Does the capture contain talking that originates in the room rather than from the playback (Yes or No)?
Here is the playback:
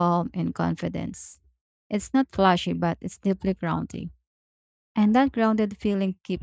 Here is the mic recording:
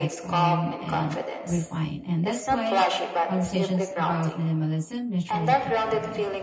Yes